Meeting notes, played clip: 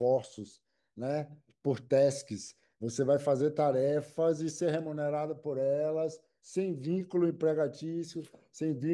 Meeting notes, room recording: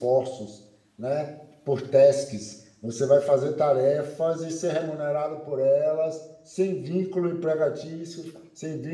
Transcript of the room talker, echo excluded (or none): none